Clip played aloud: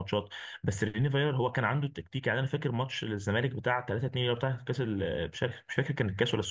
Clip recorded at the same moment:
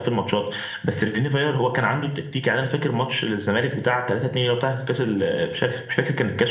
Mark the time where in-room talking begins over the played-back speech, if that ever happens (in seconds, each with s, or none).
none